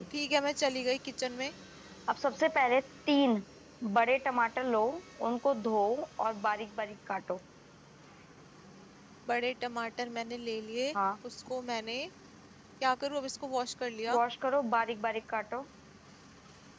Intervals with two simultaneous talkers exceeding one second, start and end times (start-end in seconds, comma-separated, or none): none